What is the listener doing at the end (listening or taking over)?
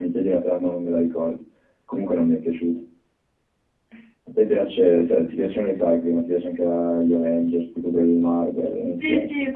taking over